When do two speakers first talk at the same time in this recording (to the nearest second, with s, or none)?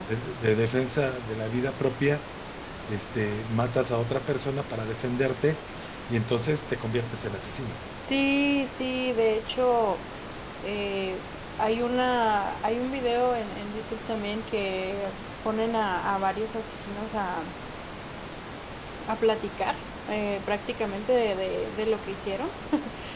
none